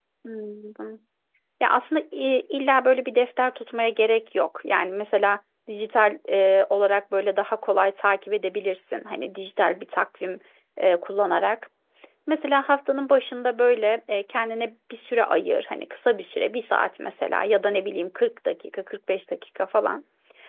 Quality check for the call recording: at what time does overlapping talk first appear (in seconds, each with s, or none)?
none